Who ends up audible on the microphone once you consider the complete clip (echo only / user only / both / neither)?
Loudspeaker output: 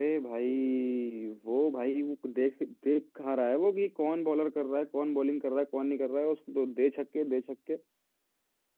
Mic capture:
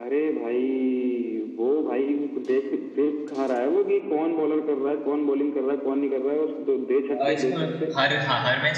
both